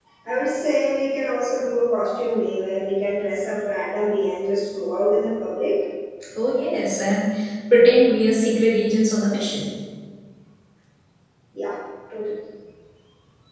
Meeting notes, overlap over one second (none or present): none